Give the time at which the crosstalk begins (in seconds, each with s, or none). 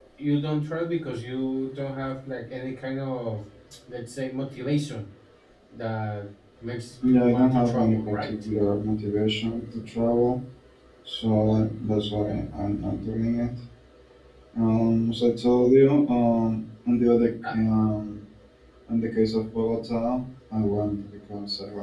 7.0 s